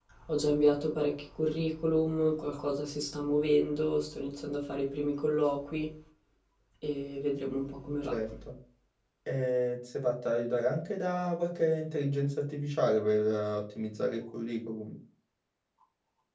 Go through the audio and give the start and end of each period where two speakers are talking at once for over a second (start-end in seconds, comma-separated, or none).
none